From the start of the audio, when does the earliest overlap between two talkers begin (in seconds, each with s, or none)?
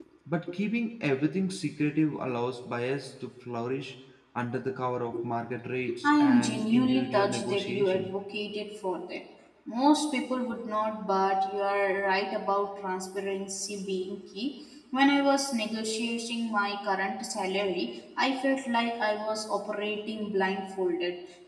6.0 s